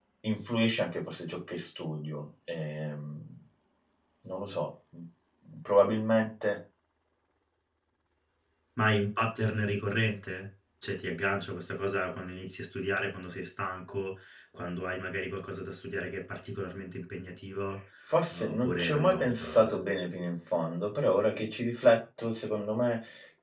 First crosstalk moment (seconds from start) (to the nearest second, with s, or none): 18 s